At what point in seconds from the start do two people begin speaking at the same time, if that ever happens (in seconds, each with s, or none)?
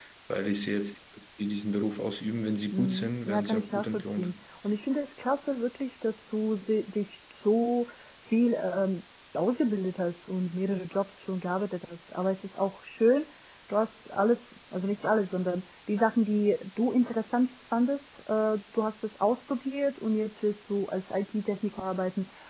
2.7 s